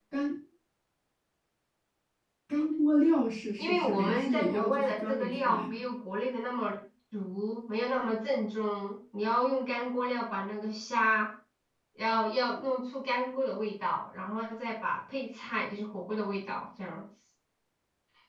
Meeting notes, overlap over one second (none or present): present